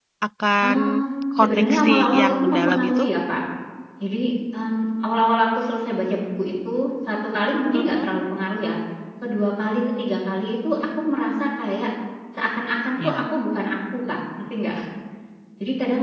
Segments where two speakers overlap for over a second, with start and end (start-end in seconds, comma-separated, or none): 1.4-3.0